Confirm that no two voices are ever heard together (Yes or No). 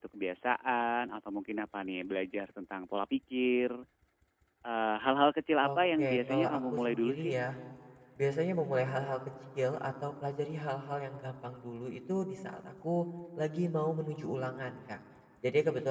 No